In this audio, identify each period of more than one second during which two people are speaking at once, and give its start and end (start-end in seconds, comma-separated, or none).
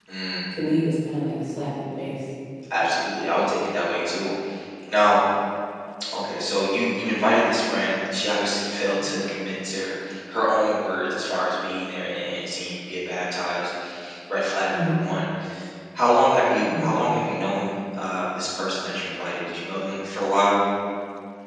none